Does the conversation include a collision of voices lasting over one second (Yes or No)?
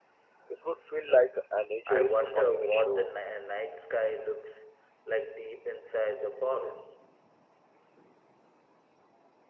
Yes